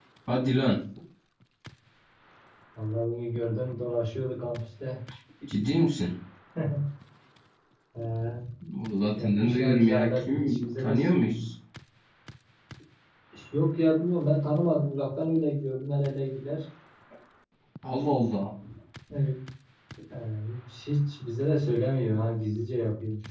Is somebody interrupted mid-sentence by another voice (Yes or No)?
Yes